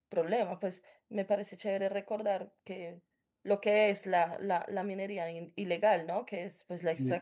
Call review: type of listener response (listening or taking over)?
listening